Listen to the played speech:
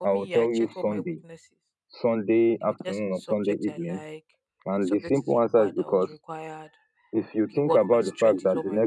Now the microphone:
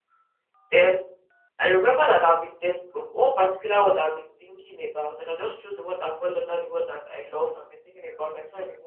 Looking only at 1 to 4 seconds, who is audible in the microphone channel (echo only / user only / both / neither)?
user only